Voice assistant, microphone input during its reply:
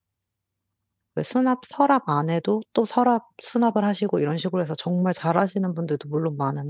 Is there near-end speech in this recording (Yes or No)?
Yes